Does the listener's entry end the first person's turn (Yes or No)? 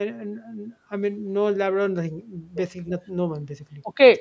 Yes